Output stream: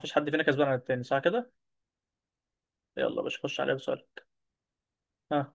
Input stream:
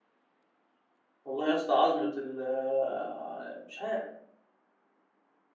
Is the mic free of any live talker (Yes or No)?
No